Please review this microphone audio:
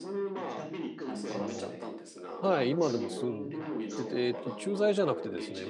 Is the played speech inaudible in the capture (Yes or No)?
No